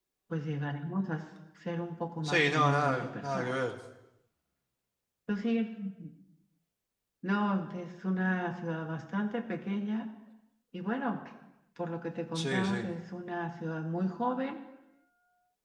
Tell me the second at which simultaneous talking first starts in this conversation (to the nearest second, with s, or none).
2 s